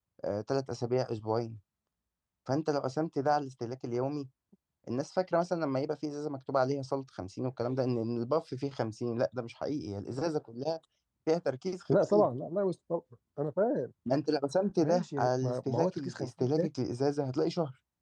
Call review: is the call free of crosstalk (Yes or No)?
No